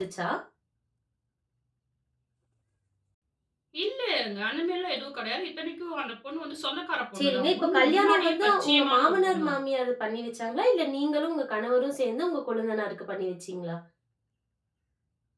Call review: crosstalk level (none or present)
present